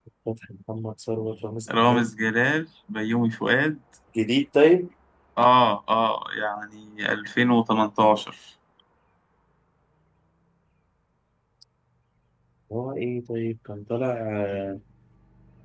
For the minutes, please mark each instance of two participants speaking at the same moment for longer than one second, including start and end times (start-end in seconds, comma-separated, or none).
none